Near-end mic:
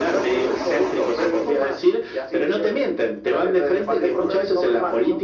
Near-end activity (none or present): none